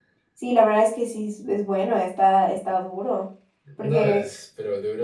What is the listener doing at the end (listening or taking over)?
taking over